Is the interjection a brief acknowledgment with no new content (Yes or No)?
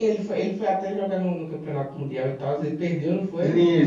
No